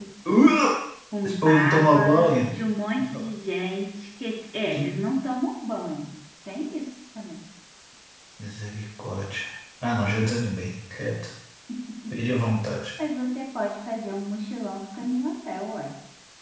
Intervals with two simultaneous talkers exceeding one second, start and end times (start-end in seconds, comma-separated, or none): 1.2-2.5